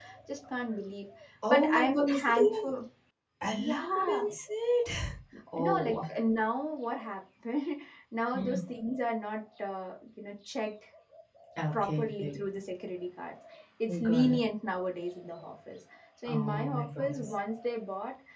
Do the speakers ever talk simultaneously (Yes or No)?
Yes